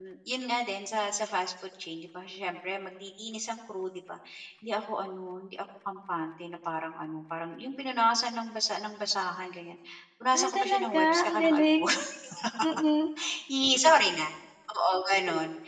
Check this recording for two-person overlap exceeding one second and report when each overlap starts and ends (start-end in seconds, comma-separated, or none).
10.3-11.8